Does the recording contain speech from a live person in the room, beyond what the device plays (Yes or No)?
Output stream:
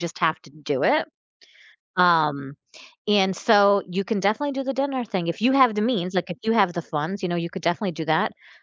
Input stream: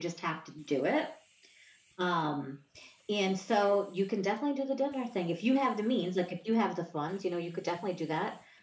No